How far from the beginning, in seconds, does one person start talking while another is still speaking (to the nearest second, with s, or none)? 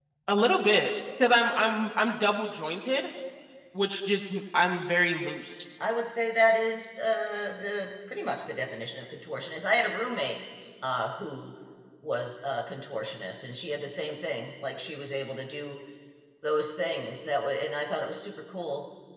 none